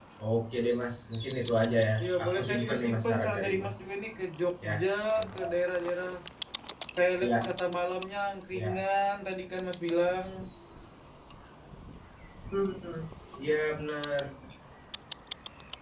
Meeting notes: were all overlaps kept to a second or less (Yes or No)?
No